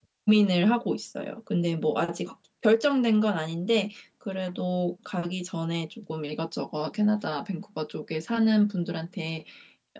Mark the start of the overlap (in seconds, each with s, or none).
none